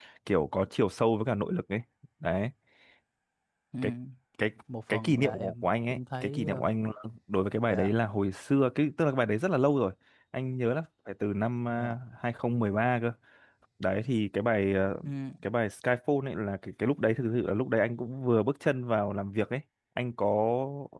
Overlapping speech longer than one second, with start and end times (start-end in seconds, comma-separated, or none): 4.9-6.7